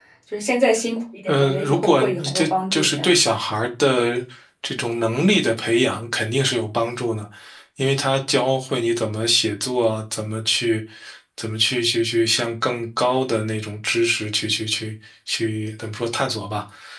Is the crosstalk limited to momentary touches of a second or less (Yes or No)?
No